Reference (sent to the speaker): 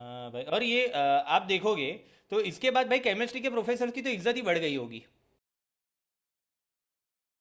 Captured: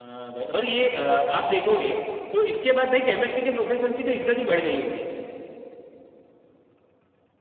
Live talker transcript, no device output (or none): none